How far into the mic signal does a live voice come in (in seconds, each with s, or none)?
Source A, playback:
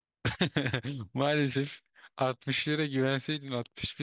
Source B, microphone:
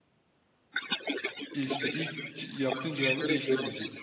1.5 s